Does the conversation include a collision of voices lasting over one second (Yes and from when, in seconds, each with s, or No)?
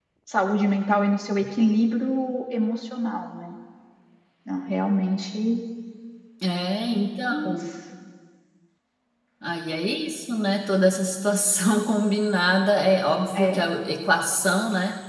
No